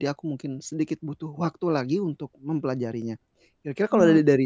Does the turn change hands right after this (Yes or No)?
No